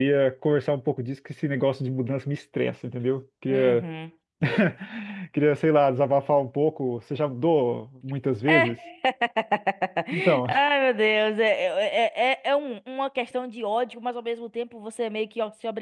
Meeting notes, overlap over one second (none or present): none